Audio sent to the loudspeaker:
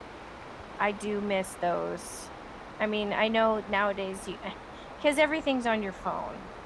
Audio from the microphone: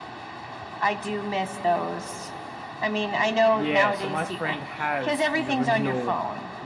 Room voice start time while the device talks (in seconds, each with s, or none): 3.5 s